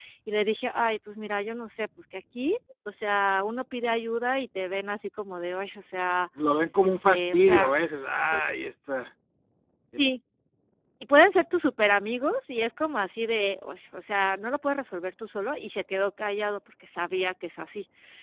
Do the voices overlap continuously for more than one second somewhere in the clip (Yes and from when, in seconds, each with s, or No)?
Yes, from 6.8 s